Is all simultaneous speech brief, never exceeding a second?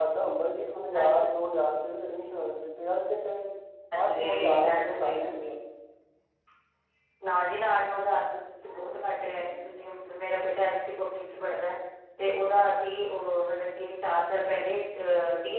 No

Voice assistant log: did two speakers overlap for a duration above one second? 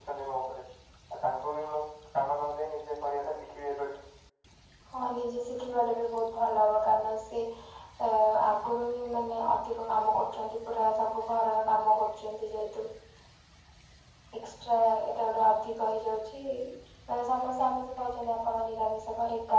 No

